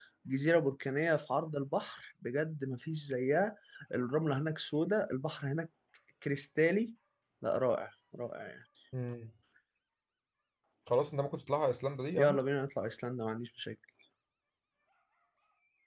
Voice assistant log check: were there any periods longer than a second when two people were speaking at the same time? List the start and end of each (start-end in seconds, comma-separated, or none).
none